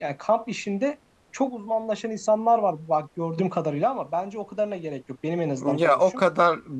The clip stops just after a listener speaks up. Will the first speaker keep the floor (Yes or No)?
No